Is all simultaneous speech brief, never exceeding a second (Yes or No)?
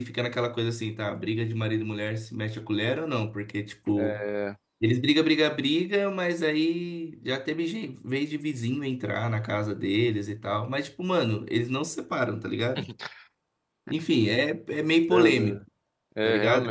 Yes